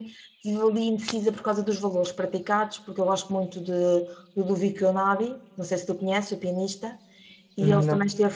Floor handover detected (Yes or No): No